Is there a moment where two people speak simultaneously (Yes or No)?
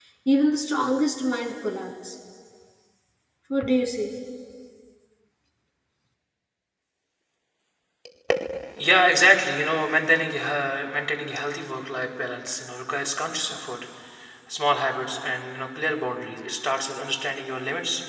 No